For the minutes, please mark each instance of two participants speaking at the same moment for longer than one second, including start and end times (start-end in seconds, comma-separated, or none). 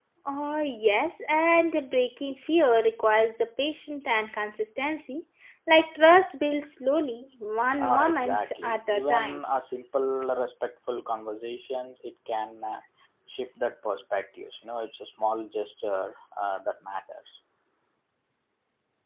7.8-9.4